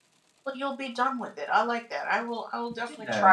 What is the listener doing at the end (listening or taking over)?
taking over